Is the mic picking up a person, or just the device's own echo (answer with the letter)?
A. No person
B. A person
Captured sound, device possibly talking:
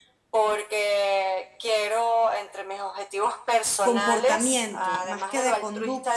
B